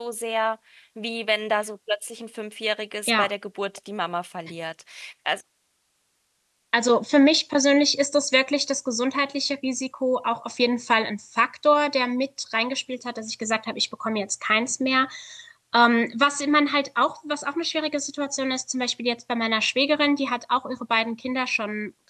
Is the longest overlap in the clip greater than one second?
No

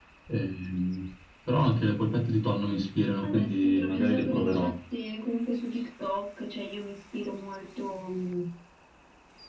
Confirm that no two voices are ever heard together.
No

